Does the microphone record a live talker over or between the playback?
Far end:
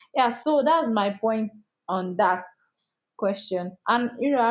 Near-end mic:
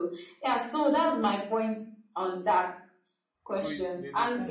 Yes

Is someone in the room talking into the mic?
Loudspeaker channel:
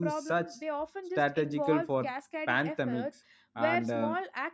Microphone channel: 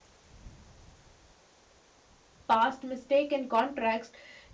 Yes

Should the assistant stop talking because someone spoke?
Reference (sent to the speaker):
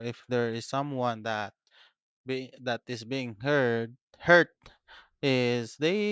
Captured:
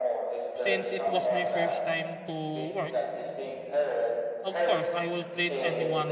Yes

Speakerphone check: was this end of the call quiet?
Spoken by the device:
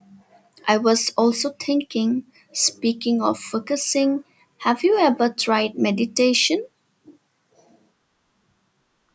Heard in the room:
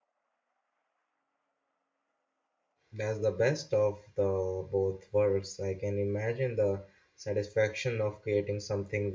No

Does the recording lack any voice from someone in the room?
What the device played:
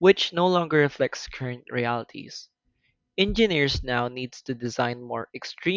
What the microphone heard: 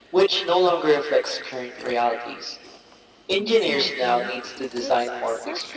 No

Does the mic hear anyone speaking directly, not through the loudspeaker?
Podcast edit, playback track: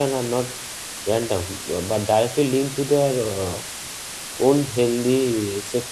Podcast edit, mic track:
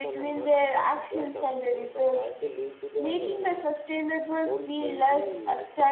Yes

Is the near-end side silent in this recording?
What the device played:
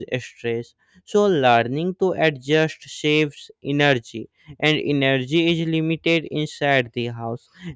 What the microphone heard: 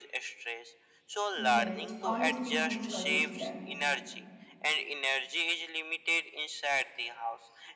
No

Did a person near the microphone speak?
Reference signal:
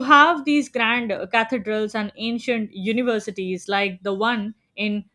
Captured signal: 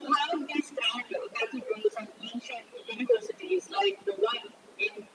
No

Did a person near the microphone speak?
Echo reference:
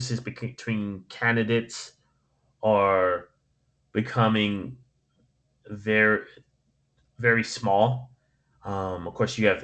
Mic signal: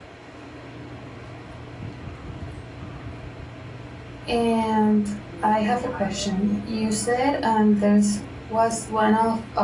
Yes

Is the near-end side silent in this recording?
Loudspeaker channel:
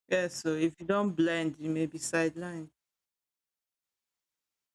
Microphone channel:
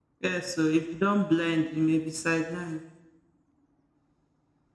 Yes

